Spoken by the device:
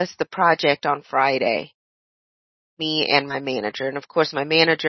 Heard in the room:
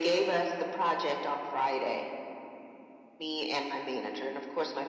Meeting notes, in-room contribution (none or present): none